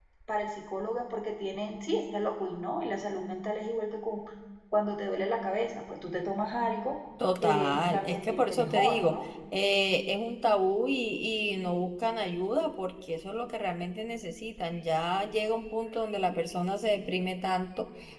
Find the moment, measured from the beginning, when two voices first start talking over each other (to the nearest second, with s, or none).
7 s